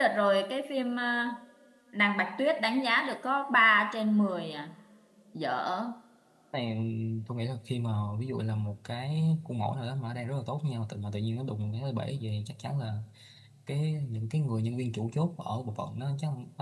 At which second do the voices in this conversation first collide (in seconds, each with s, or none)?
none